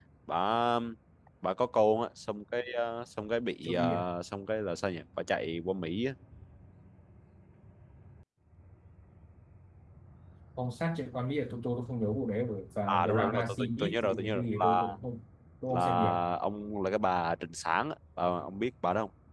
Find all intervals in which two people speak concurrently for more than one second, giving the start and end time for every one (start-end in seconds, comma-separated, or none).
12.9-14.9